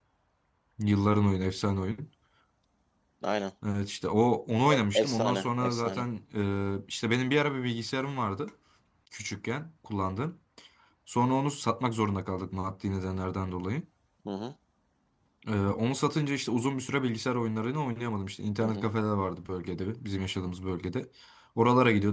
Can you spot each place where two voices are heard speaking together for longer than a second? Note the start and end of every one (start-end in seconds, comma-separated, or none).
4.7-6.0